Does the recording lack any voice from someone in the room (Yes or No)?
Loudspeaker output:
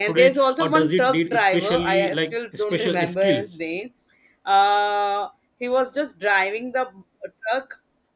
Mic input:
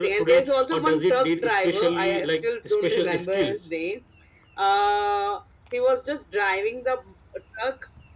Yes